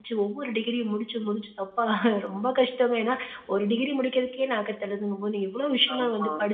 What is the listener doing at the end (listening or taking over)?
listening